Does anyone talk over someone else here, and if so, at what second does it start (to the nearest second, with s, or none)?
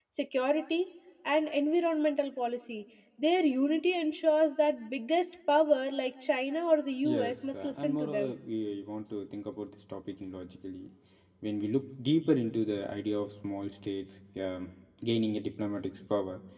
7 s